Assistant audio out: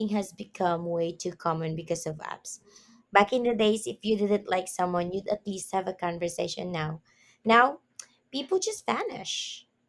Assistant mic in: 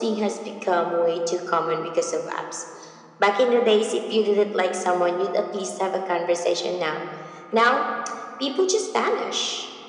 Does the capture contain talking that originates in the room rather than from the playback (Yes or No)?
No